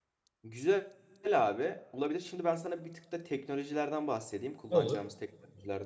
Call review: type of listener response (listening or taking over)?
listening